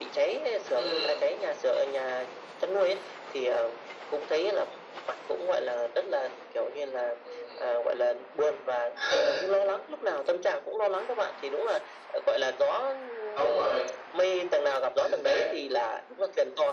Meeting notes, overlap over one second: none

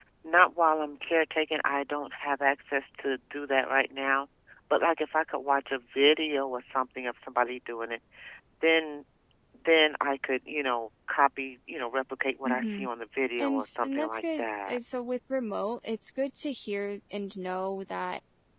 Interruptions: present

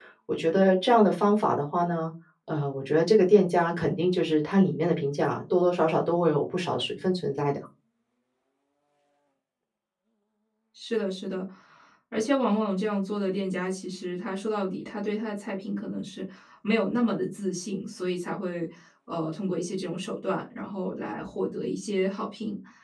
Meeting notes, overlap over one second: none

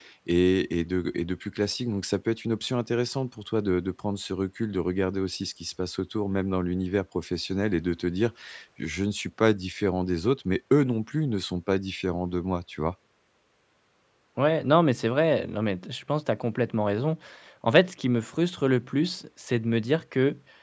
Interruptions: none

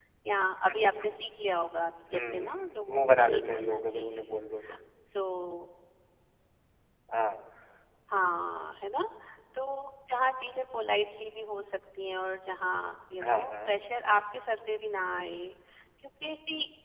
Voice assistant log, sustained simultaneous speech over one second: present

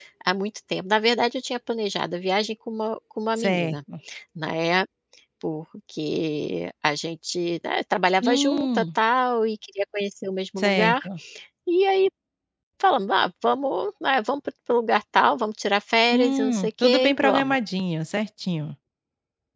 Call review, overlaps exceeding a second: present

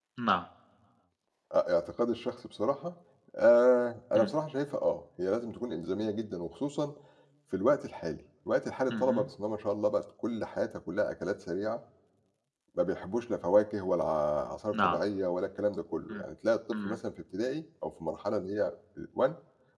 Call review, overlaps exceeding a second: none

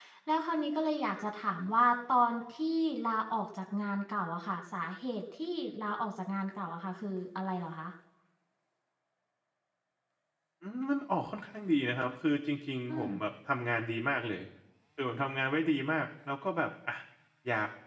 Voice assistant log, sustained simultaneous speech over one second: none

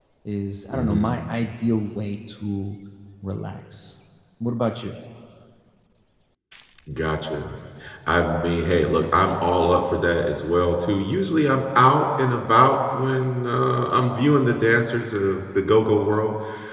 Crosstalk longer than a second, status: none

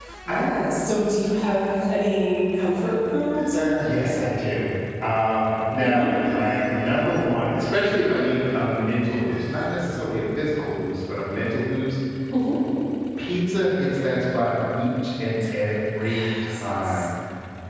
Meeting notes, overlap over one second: none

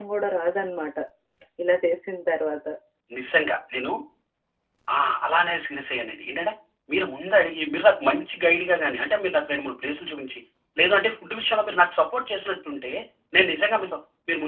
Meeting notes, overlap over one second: none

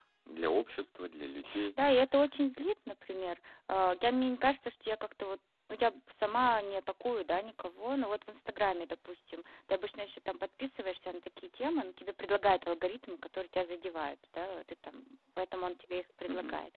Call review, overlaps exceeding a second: none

